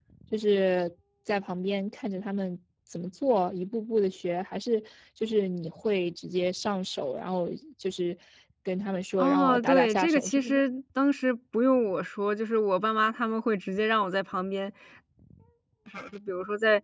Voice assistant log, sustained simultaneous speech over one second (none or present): present